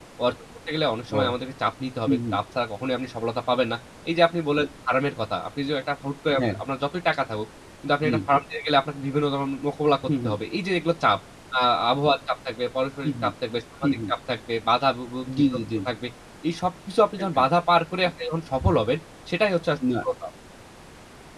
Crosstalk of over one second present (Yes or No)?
No